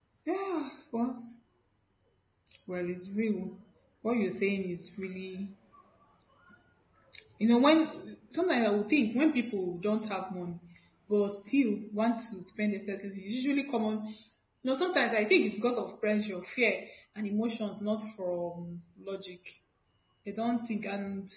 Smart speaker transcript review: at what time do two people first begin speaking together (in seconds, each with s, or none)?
none